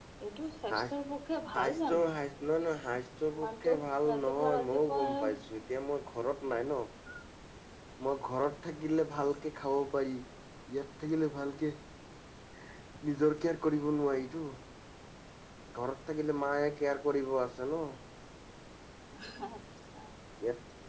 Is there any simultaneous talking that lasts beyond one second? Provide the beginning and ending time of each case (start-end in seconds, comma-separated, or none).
4.1-5.4